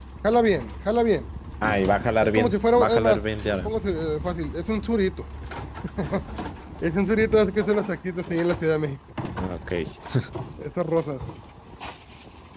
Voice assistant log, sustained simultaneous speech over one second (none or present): present